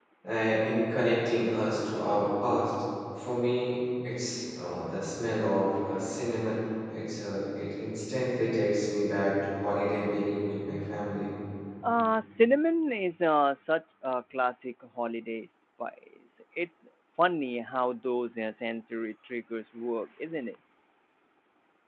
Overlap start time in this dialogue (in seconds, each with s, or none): none